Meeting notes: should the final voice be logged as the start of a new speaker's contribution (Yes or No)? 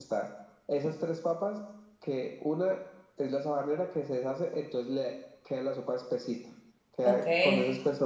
No